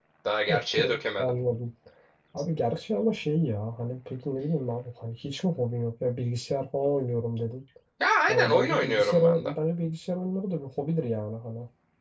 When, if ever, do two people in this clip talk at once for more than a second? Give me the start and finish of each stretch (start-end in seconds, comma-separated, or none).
8.3-9.5